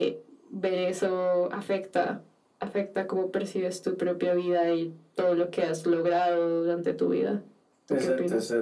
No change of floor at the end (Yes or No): No